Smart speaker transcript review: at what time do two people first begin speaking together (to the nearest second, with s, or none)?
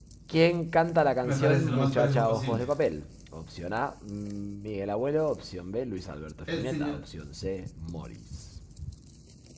1 s